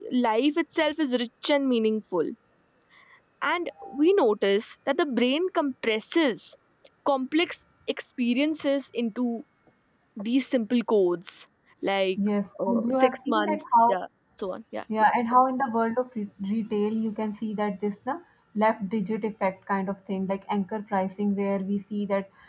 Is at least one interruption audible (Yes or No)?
Yes